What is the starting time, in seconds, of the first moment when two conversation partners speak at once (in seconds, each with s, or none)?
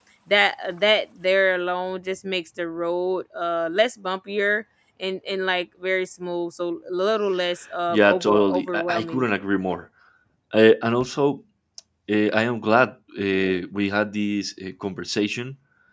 7.9 s